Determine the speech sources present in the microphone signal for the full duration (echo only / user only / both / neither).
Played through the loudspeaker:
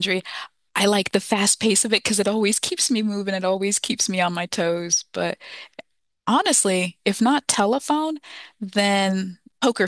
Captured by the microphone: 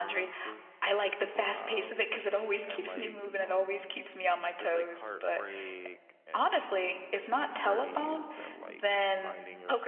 both